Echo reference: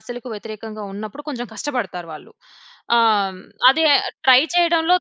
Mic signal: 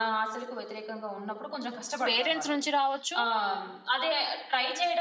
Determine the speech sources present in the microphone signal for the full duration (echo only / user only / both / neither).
both